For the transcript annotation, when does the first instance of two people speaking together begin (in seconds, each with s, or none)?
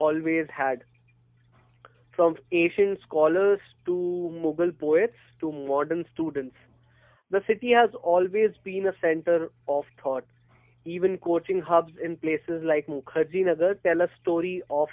none